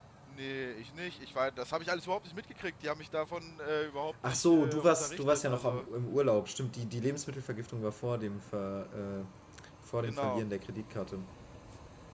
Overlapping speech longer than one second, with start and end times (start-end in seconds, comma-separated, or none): 4.2-5.9